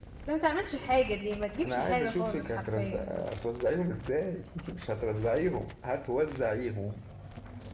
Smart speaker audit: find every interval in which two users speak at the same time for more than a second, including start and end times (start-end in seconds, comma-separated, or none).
1.6-3.1